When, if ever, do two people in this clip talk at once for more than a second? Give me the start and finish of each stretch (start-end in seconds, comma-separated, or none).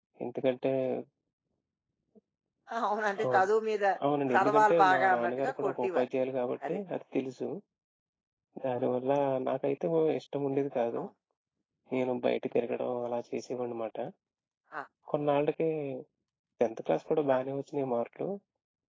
4.3-6.0